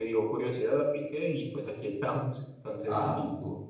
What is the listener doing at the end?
taking over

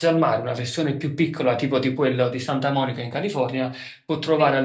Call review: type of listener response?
listening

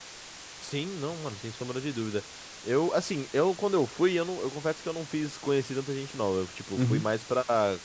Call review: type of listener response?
listening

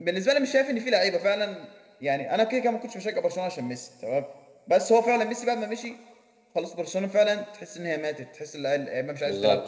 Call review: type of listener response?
taking over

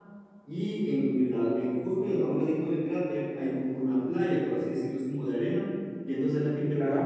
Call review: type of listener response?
listening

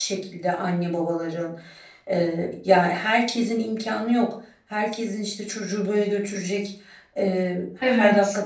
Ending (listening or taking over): listening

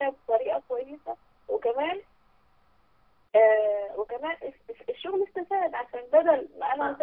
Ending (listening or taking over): listening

